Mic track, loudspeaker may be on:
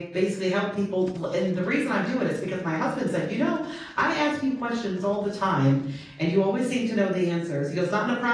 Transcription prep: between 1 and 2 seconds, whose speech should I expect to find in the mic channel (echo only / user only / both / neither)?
echo only